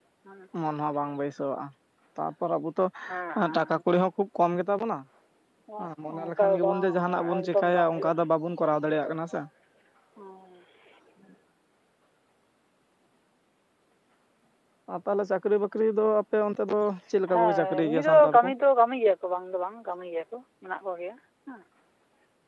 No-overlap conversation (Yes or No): No